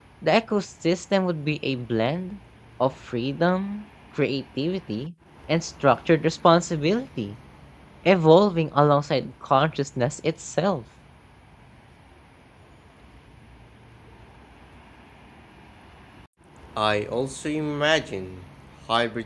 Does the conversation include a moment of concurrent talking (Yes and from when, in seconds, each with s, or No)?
No